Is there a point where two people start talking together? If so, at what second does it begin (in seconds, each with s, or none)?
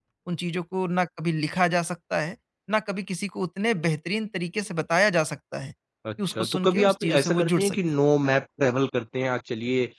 6.0 s